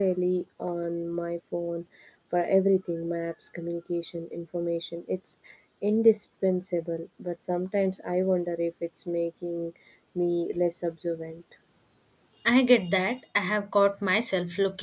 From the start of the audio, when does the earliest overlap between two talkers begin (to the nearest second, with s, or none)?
none